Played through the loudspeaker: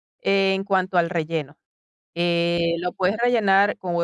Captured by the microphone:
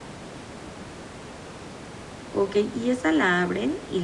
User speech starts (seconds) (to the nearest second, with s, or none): 2 s